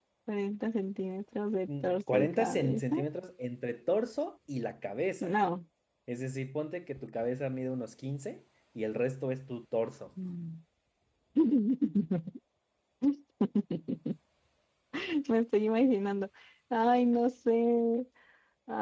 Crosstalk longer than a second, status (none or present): present